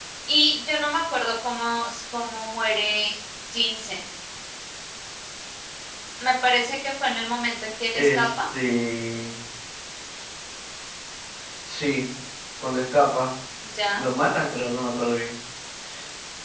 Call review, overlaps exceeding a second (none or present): none